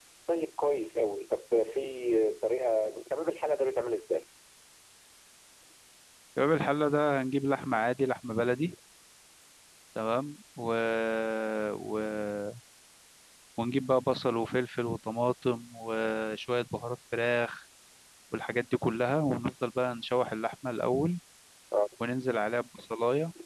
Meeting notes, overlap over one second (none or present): none